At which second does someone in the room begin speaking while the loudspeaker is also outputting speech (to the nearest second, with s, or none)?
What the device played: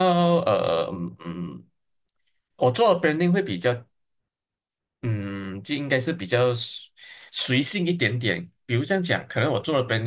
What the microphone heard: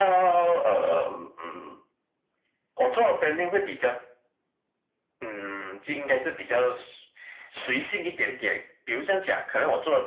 none